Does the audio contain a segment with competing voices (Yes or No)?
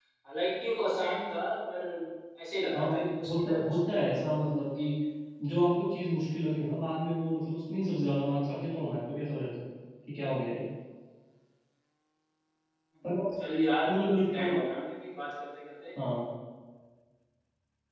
Yes